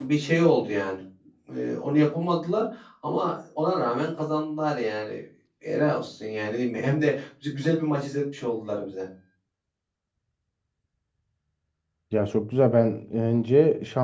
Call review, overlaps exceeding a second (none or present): none